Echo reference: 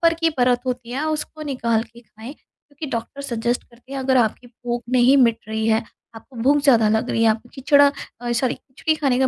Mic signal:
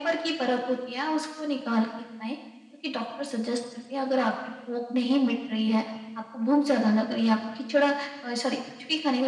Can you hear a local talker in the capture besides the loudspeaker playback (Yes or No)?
No